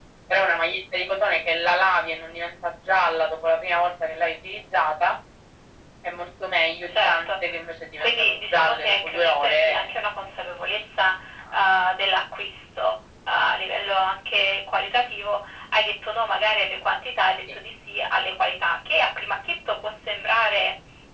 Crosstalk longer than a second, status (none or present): present